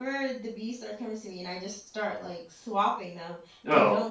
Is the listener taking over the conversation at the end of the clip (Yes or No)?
No